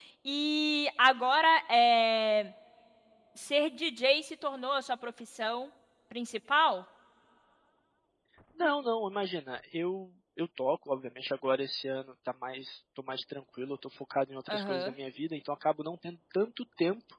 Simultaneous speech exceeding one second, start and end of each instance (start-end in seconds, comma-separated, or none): none